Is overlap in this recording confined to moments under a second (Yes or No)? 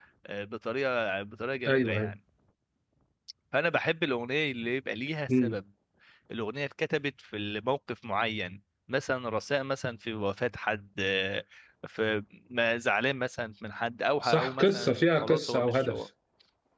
No